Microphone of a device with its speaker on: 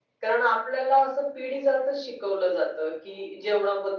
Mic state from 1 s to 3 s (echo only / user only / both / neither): echo only